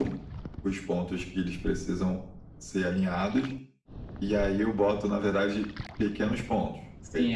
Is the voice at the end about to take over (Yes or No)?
Yes